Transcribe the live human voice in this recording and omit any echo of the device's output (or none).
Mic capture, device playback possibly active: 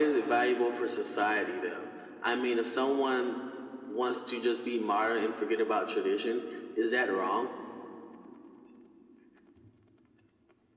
none